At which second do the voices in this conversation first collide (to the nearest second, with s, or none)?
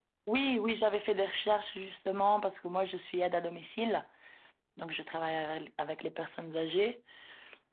none